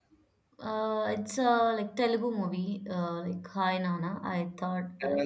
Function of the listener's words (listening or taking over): taking over